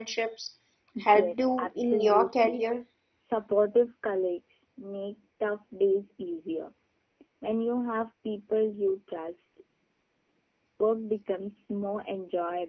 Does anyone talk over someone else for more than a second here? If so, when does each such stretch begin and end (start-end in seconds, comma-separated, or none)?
1.1-2.6